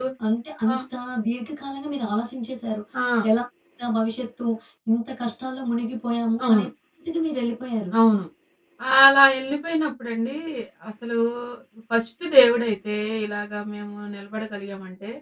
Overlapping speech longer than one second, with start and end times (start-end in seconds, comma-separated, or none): none